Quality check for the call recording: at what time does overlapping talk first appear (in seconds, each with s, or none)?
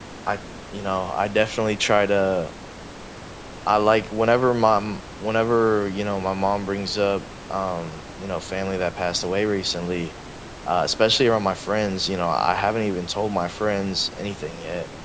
none